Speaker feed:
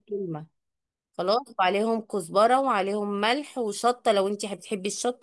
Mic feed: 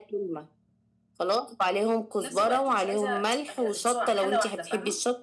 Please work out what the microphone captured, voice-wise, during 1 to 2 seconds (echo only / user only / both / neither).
echo only